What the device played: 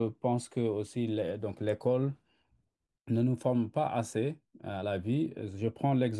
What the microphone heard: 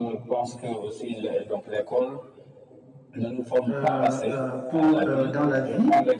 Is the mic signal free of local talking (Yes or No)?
No